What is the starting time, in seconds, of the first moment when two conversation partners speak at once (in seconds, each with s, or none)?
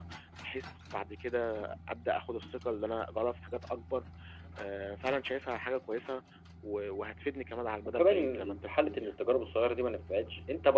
7.8 s